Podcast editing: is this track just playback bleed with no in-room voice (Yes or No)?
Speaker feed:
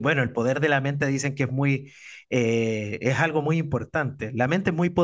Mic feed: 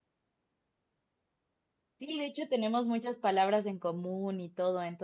No